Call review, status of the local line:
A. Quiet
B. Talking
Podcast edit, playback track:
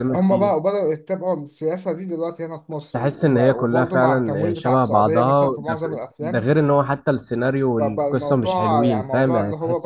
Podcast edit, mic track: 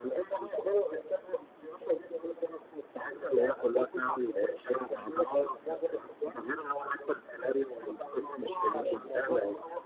A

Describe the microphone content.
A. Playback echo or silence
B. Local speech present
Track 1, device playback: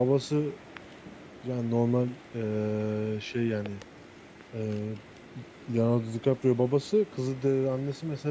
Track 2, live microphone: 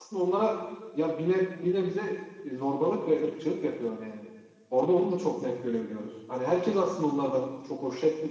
B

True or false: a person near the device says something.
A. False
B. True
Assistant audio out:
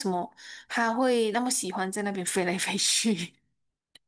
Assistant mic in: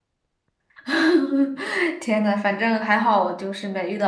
B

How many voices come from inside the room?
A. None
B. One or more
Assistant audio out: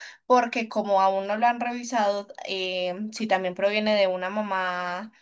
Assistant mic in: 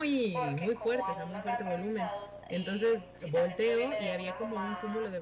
B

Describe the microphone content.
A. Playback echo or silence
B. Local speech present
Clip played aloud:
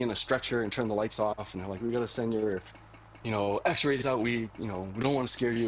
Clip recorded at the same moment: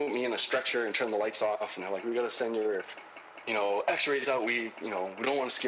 A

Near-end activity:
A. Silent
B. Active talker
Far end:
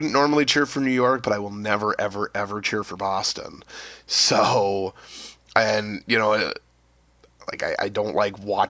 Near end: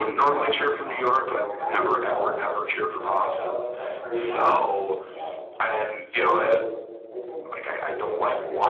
B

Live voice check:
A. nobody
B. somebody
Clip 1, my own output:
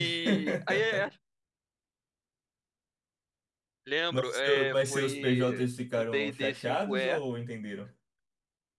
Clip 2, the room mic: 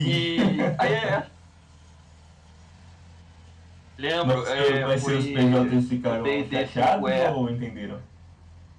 A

